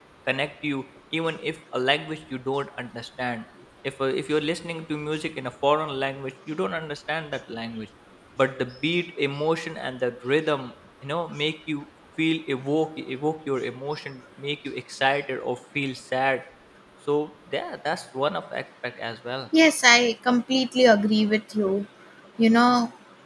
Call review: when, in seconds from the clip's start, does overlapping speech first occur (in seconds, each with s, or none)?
none